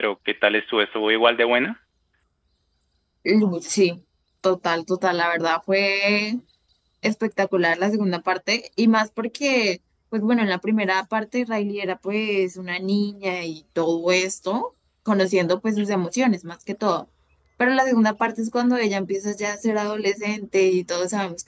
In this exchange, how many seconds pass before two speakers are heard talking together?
none

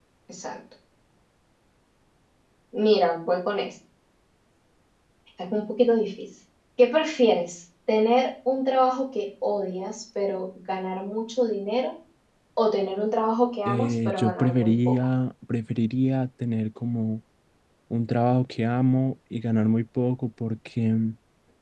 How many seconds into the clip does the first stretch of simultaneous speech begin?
14 s

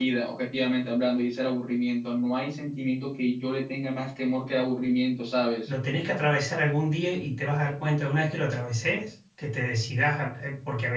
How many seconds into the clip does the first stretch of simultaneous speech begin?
none

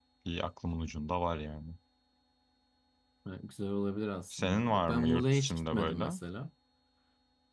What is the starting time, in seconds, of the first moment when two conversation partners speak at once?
4 s

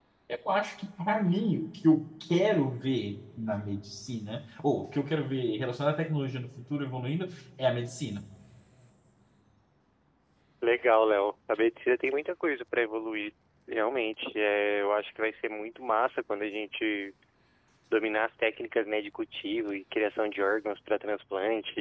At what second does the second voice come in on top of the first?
none

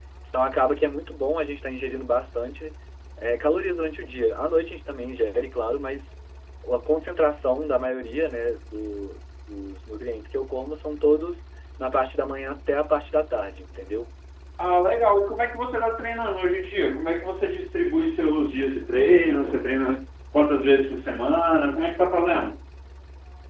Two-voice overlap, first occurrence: none

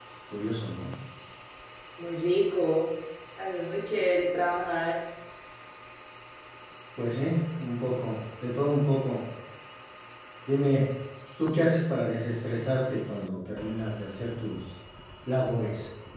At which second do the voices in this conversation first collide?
none

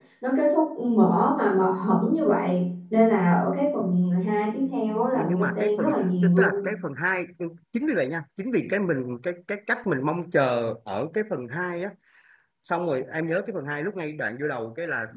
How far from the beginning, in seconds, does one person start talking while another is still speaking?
5 s

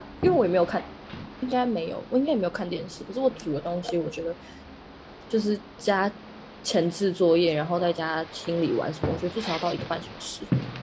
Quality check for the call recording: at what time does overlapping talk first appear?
none

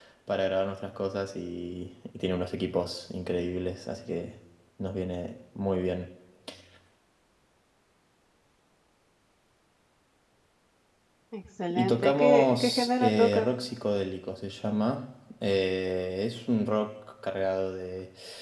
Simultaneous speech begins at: 12 s

